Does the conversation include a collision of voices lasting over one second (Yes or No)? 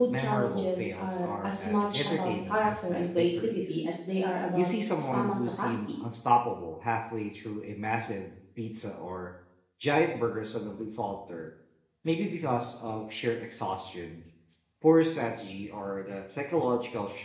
Yes